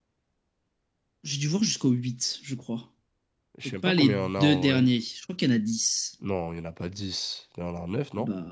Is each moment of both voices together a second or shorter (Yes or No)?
No